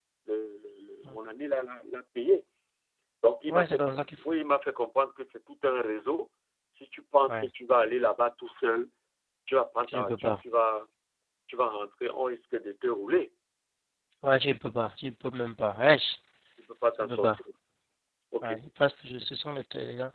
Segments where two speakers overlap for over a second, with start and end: none

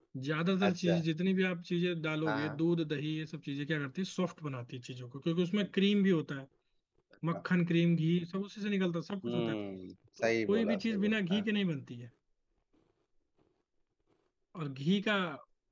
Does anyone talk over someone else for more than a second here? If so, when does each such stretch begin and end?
10.2-11.4

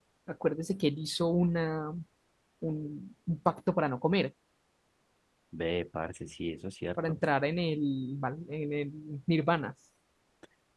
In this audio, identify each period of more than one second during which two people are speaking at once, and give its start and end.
none

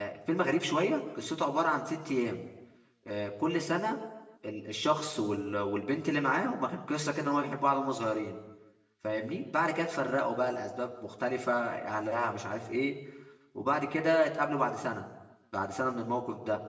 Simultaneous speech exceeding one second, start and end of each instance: none

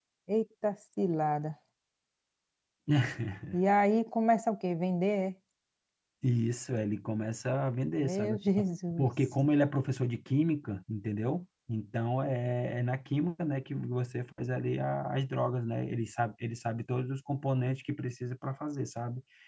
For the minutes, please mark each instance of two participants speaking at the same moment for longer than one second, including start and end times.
none

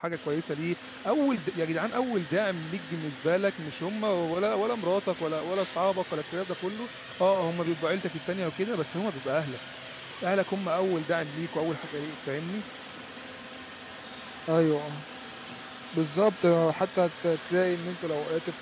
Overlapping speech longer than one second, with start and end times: none

